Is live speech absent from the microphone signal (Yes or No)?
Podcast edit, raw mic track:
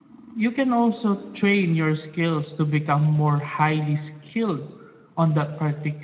Yes